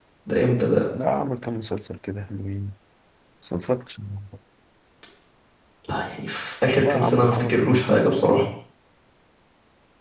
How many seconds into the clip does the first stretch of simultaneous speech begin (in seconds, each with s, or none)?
6.8 s